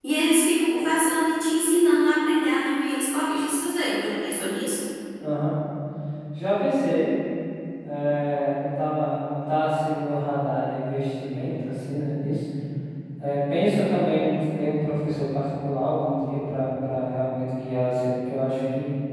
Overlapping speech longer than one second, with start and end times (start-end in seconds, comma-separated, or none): none